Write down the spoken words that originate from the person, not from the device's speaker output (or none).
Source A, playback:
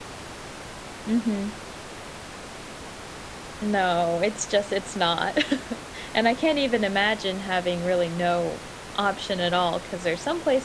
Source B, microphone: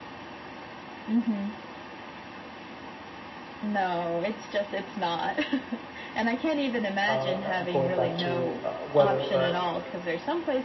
uh, I'm going back to, uh, weather, but,